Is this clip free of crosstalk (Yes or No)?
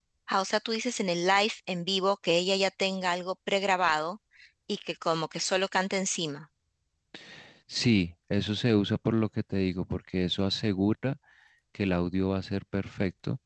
Yes